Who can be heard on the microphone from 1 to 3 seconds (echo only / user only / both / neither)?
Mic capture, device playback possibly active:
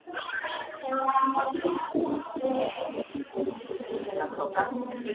echo only